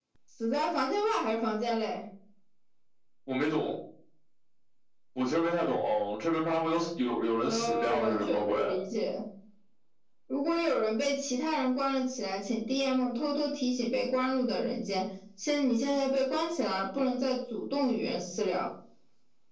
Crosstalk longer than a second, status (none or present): present